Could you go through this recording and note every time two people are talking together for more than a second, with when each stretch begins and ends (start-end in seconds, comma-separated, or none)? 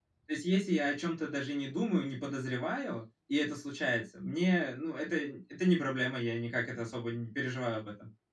none